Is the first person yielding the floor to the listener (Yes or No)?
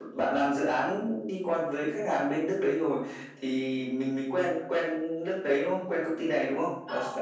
Yes